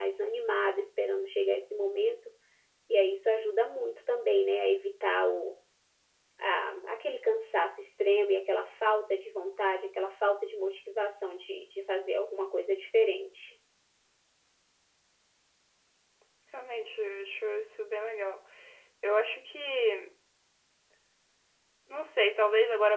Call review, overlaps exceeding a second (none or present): none